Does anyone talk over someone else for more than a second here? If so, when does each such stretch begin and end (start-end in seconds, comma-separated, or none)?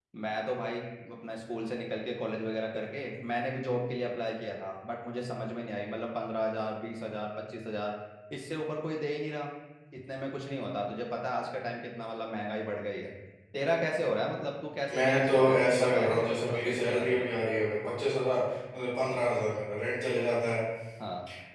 15.0-17.3